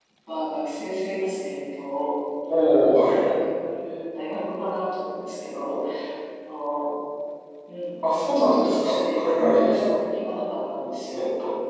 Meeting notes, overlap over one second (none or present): present